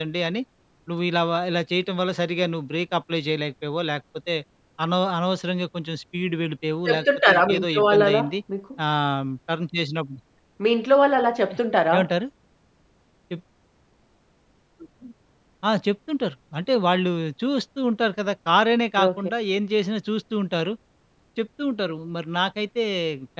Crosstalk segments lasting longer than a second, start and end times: 6.8-8.3

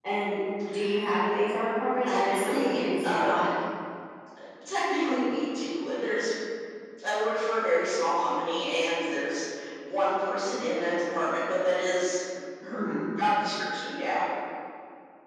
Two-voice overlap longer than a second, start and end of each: 2.1-3.5

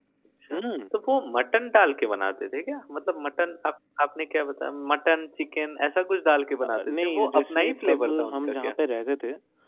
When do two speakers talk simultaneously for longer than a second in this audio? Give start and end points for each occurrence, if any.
6.6-8.8

